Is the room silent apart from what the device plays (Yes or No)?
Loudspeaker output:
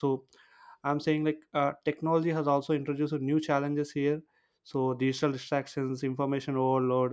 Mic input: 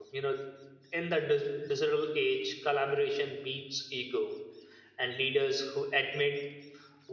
No